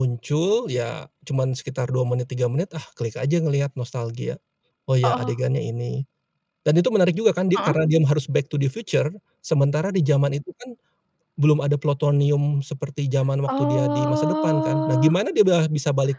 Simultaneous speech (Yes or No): Yes